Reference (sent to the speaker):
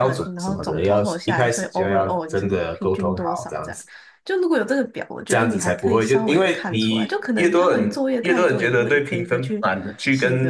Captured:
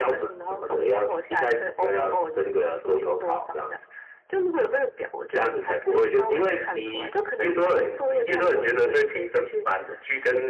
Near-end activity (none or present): none